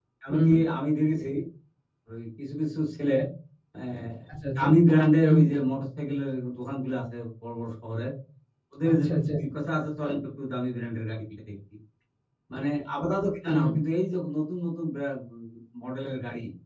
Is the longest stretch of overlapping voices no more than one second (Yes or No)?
Yes